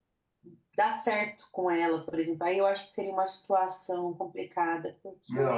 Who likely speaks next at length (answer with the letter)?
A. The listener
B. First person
A